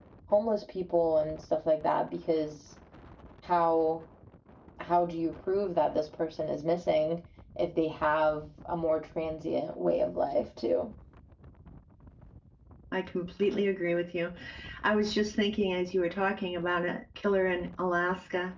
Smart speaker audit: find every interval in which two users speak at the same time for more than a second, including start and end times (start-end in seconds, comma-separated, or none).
none